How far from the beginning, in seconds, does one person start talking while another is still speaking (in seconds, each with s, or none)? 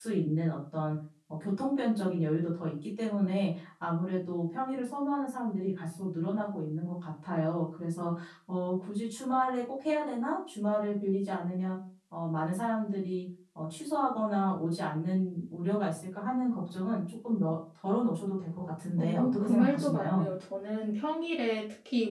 19.0 s